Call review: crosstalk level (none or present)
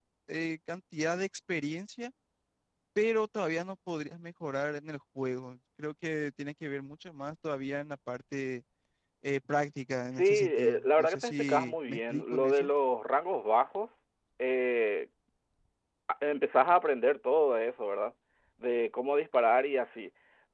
present